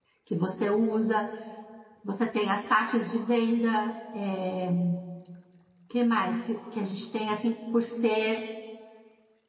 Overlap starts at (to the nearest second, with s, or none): none